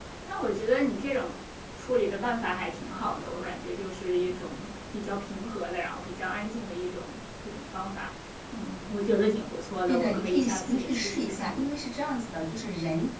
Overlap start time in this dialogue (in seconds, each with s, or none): 9.9 s